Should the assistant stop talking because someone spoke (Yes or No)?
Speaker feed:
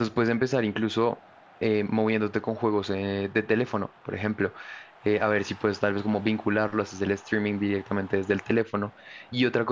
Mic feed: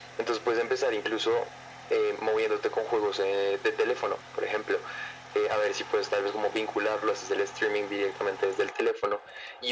No